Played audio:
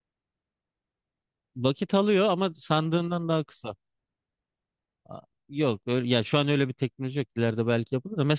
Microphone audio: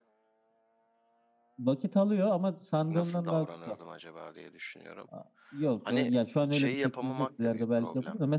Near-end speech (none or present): present